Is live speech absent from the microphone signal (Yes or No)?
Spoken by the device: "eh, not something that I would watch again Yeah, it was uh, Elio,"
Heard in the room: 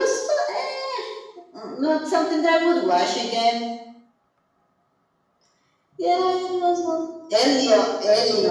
Yes